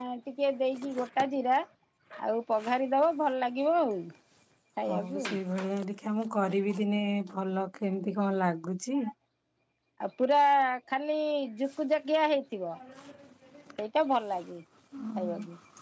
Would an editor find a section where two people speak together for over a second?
No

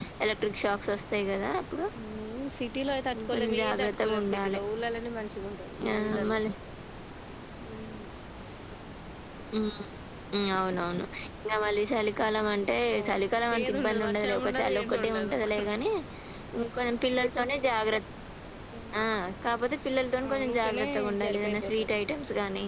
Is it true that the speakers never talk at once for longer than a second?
No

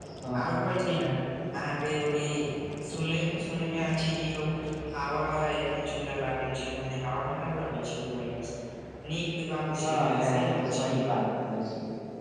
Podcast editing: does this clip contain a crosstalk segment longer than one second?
Yes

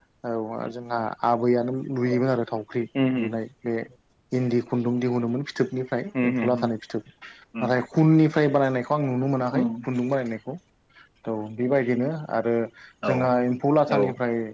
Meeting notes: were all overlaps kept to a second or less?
Yes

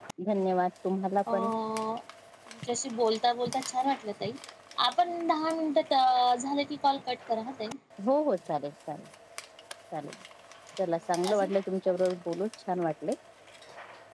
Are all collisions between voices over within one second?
Yes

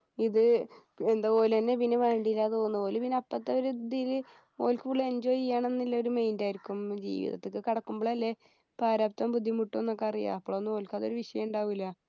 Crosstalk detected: No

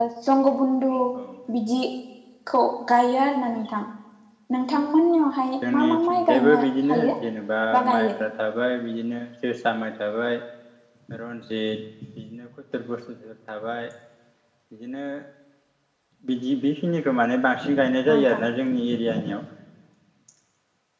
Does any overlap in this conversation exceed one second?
Yes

